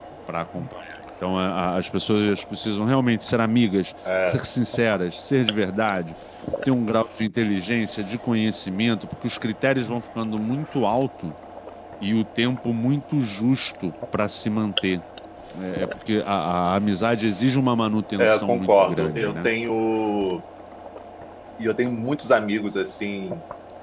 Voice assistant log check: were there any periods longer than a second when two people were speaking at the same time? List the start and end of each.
18.2-19.5

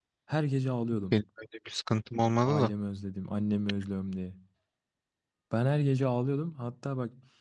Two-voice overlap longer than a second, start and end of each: none

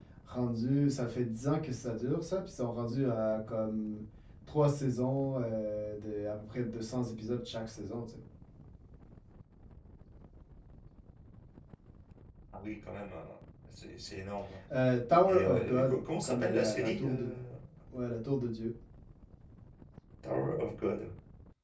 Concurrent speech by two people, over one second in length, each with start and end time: 15.2-17.3

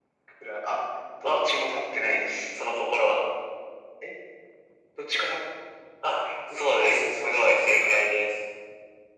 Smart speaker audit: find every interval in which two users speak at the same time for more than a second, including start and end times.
6.6-8.0

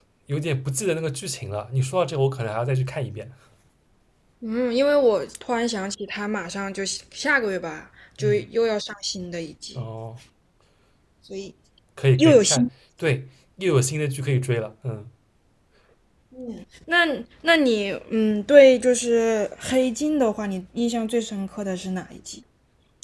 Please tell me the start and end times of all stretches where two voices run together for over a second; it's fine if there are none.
none

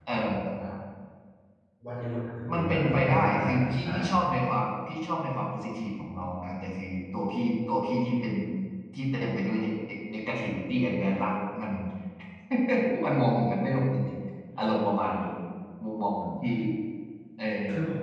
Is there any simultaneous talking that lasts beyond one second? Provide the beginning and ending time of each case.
2.5-4.3

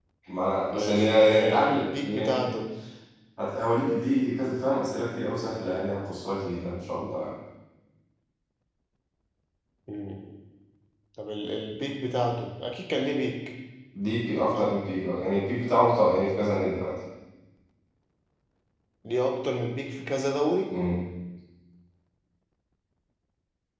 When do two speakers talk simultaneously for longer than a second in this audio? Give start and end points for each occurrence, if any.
0.7-2.5

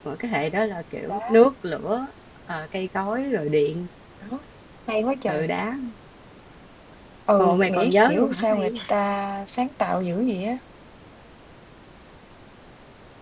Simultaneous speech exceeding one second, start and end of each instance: 7.4-8.8

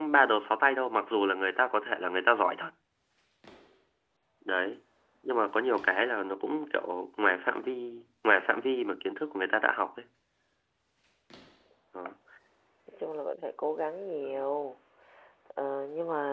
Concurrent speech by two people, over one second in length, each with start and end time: none

